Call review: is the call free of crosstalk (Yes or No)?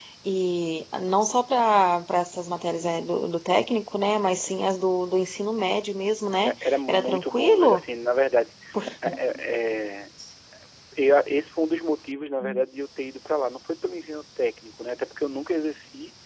No